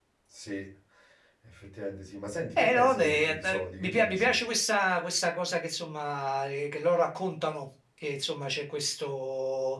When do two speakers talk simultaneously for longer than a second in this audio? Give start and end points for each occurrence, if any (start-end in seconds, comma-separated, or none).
2.6-4.3